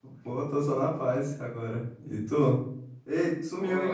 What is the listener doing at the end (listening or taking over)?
taking over